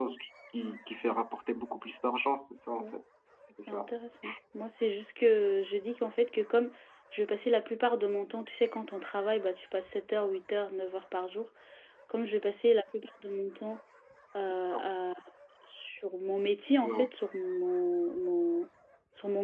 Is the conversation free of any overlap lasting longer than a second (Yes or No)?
Yes